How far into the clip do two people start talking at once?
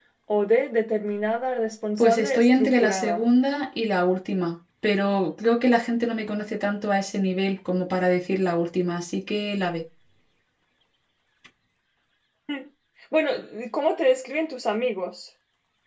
2.0 s

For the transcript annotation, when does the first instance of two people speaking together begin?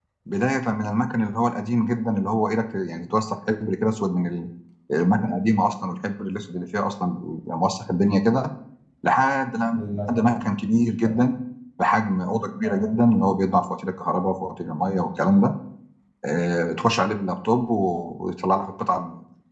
9.7 s

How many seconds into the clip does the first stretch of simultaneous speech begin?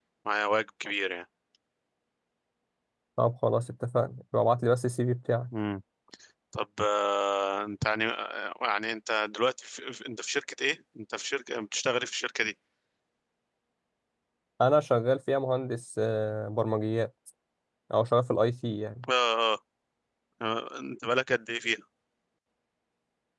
none

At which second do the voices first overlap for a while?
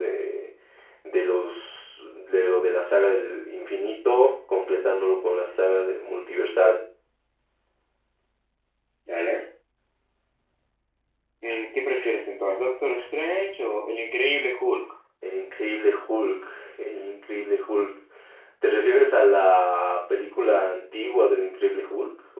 none

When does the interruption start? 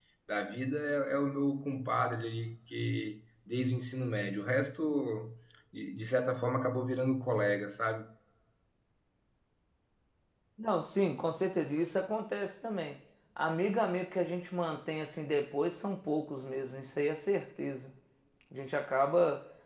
none

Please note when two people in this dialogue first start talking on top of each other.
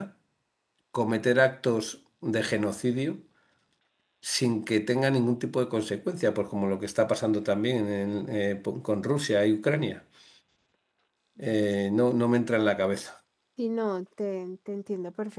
none

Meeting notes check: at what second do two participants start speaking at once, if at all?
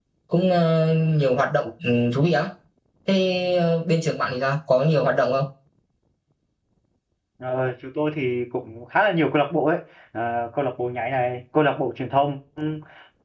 none

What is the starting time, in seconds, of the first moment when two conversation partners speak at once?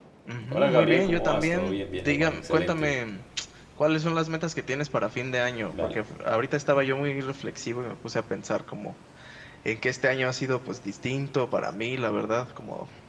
0.5 s

